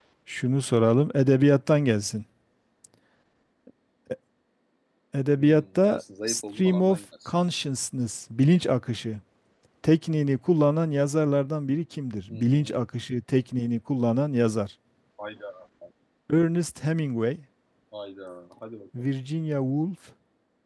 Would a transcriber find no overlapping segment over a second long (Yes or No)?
No